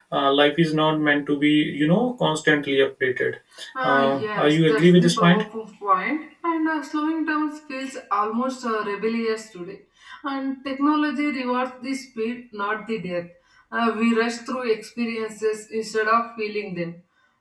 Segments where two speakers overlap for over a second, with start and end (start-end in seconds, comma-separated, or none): 3.8-5.4